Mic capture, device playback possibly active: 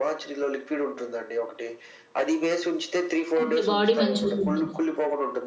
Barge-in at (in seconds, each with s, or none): 3.4 s